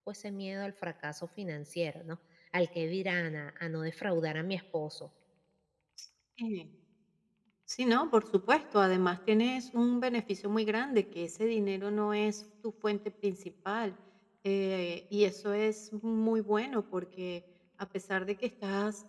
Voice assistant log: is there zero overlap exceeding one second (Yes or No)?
Yes